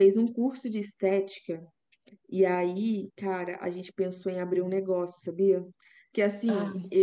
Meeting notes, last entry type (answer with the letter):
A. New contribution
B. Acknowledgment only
B